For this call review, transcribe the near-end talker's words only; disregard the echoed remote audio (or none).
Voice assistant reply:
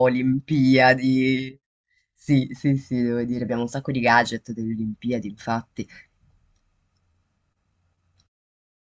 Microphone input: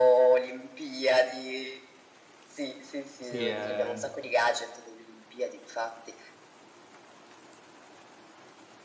sì, eh,